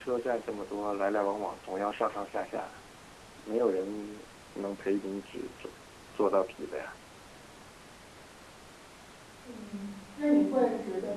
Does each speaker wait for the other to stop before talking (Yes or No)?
Yes